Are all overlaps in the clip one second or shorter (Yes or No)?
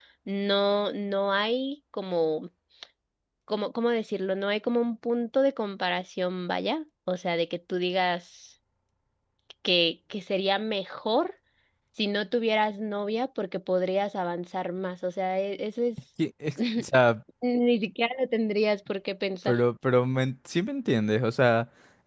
Yes